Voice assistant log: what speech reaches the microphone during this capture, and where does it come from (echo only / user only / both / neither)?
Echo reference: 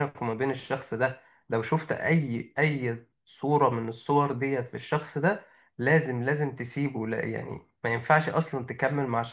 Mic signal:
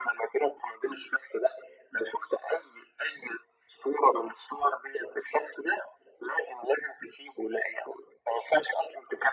echo only